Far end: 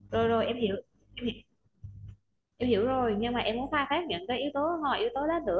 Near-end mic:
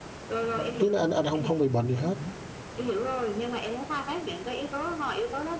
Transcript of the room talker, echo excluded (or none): không- trước đây anh anh không không bị bệnh gì hết